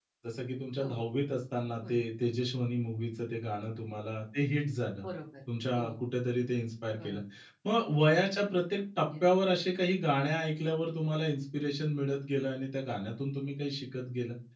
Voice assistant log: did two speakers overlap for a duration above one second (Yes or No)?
No